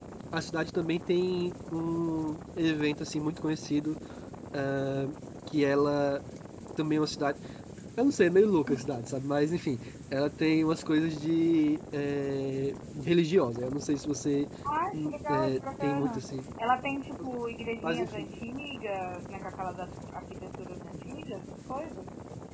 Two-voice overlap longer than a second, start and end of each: 14.9-16.2

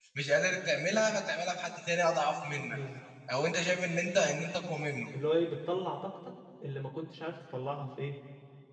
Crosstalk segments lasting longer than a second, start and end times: none

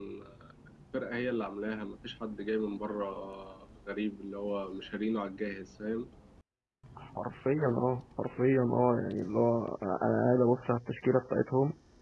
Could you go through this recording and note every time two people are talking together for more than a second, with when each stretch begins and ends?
none

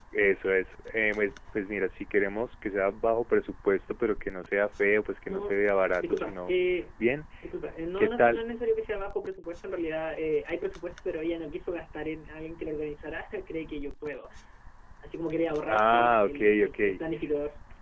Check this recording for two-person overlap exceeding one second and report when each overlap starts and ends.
15.7-17.0

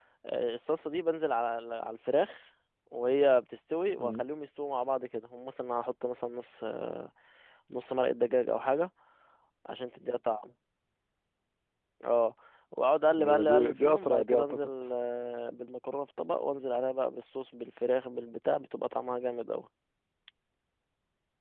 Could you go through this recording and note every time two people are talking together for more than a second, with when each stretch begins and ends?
13.2-14.7

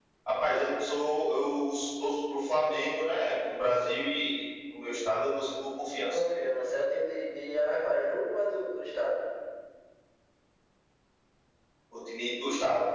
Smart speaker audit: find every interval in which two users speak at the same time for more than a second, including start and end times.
none

